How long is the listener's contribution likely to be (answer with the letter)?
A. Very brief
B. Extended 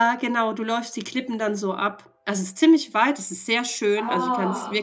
A